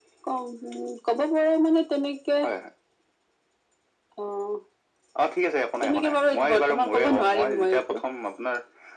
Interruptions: present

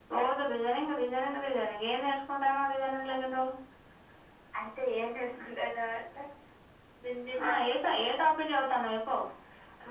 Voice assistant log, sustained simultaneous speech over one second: none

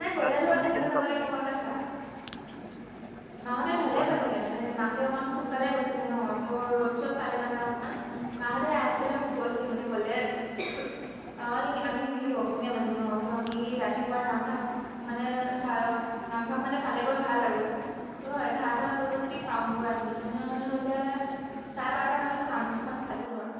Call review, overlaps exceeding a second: present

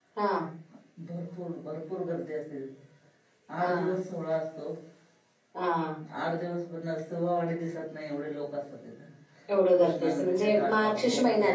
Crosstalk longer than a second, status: present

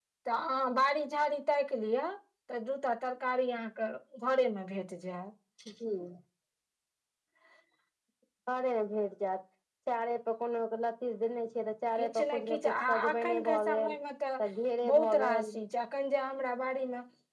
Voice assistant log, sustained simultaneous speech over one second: present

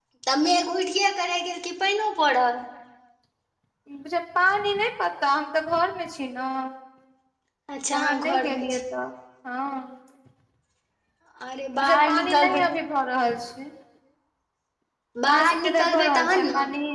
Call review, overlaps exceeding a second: present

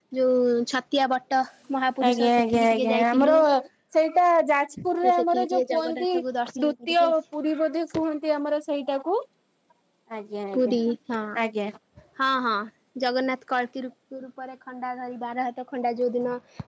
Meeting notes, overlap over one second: present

